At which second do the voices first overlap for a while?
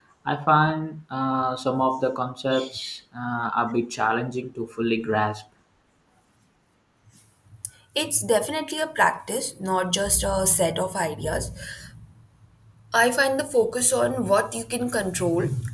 none

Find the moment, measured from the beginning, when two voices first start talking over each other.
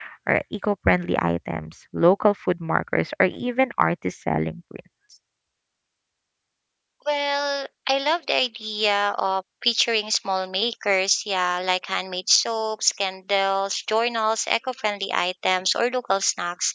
none

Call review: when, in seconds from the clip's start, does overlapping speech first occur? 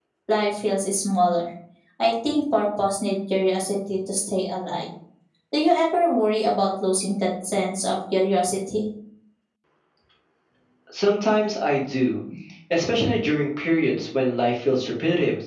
none

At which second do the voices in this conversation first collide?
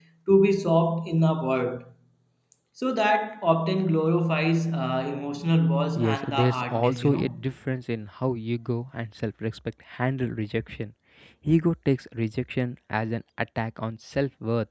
6 s

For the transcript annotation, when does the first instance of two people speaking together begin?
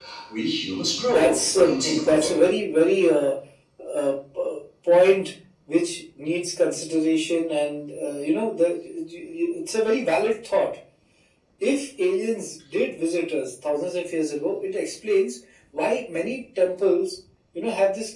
1 s

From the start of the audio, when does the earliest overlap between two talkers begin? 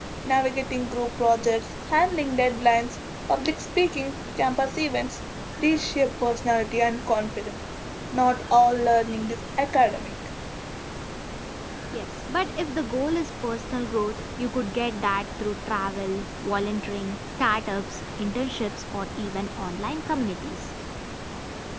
none

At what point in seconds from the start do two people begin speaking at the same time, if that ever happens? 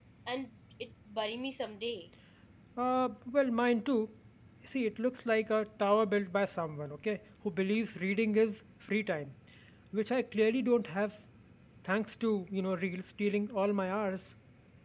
none

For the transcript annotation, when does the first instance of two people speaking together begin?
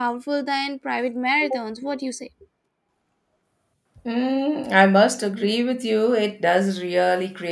none

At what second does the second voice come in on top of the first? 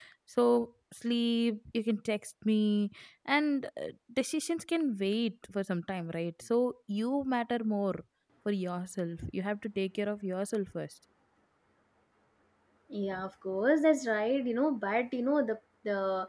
none

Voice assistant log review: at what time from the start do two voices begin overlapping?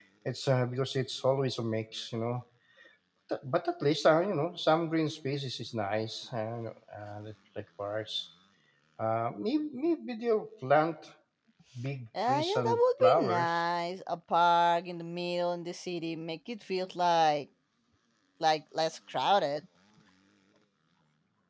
12 s

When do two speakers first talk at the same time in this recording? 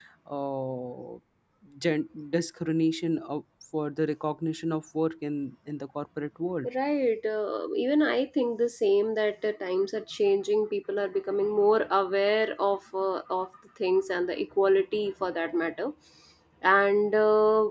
none

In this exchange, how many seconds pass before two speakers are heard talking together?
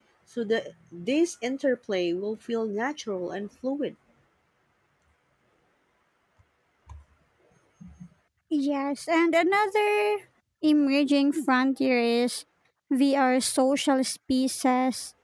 none

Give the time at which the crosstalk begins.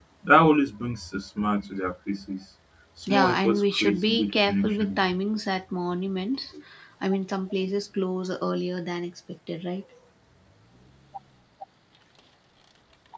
3 s

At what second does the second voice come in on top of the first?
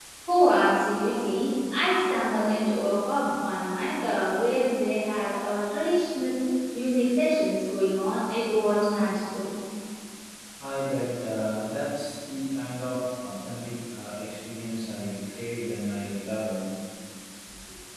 none

